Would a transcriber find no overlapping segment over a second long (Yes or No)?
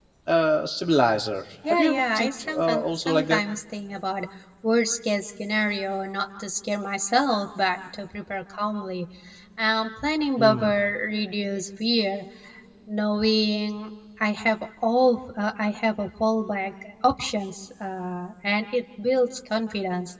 No